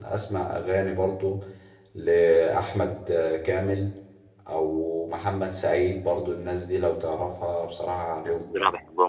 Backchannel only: No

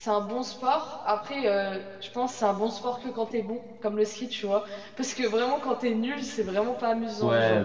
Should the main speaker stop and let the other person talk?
Yes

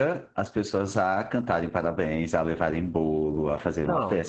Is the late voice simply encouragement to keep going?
No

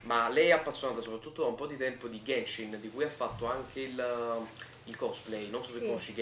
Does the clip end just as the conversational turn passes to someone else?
Yes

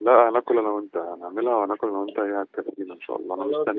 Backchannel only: No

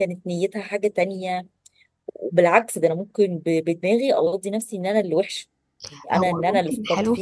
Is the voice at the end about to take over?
Yes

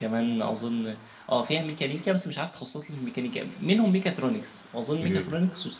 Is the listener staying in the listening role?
Yes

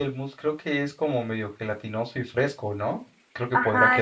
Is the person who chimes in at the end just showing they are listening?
No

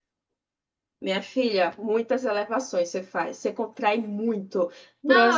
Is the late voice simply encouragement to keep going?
No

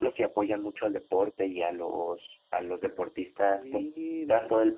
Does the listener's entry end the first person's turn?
No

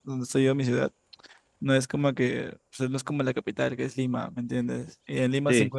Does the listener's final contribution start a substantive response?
No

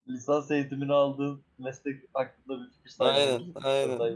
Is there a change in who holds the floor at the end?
Yes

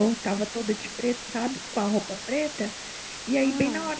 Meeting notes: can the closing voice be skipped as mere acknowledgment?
Yes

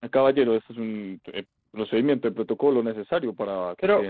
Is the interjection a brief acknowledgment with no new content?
No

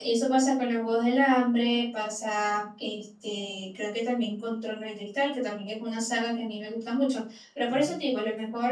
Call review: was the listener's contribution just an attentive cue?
Yes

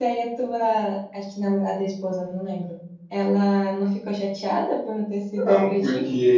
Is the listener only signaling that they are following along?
No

